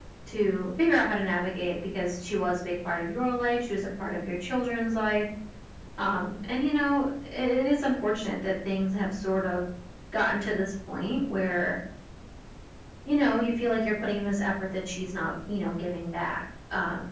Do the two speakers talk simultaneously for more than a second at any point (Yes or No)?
No